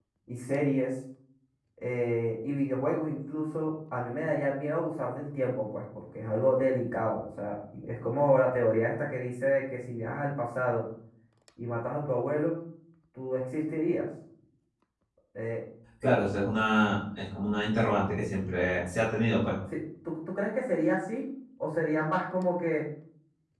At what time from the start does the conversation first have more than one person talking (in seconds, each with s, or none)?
none